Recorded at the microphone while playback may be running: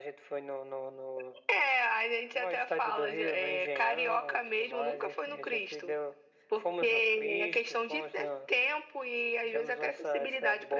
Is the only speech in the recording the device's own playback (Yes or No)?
Yes